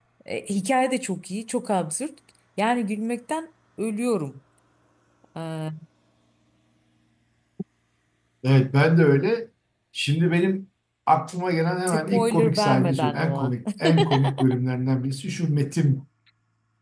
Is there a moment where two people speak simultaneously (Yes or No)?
Yes